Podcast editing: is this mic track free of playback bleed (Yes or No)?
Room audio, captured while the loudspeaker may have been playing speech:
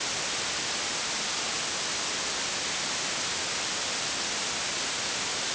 Yes